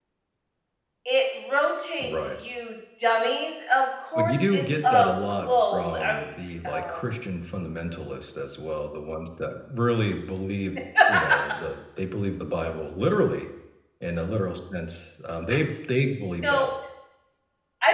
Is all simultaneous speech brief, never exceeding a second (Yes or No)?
No